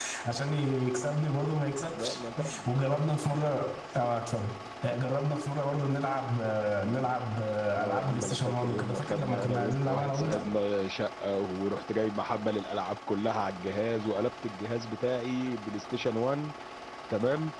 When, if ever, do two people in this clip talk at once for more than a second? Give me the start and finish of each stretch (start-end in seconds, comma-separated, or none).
7.8-10.4